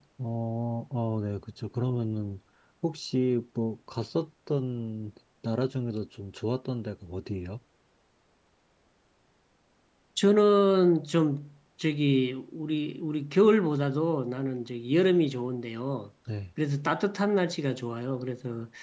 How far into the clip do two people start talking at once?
none

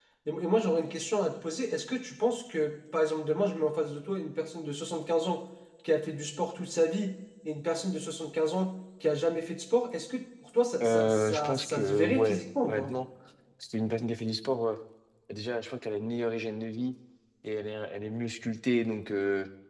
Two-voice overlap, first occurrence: 10.8 s

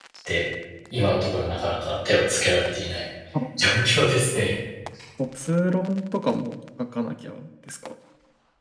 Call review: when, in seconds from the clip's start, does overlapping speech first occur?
none

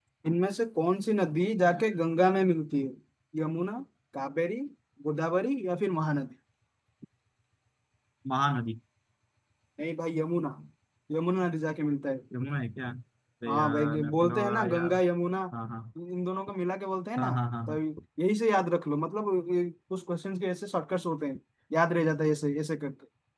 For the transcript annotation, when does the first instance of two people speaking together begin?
13.5 s

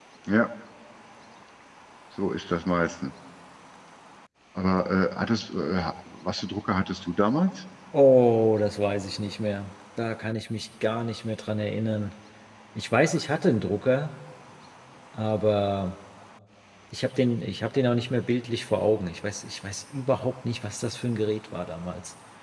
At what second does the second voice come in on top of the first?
none

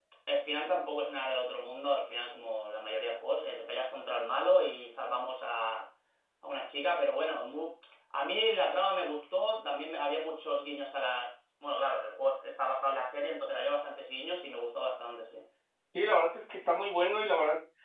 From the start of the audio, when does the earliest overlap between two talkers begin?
none

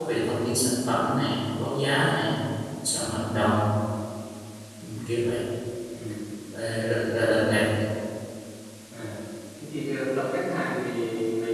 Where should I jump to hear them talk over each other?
none

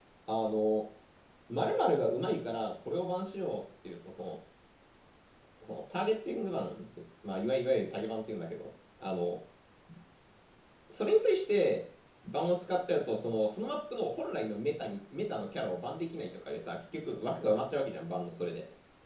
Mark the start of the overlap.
none

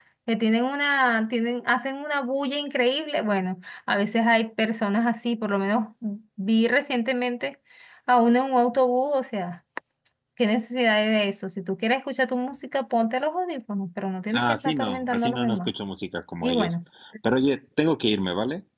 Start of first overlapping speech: 14.3 s

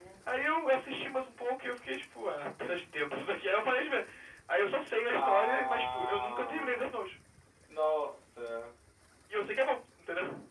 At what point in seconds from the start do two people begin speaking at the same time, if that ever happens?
5.1 s

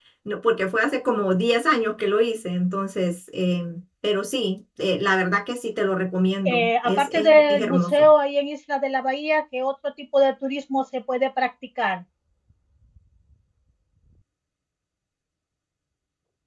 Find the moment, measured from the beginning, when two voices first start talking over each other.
6.4 s

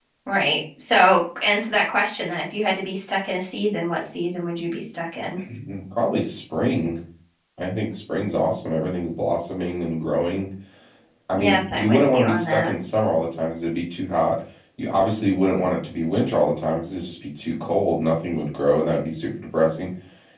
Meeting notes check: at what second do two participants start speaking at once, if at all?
11.3 s

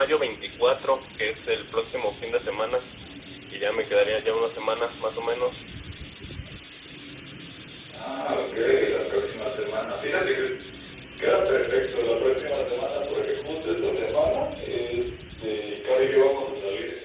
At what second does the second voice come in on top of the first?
none

